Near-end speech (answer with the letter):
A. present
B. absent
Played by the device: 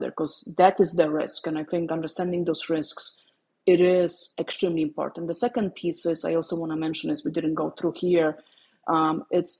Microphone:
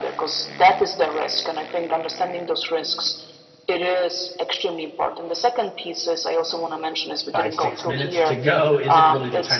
A